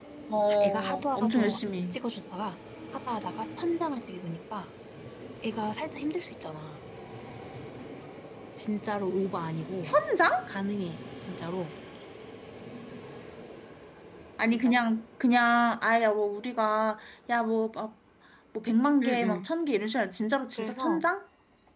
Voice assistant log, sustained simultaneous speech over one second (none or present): present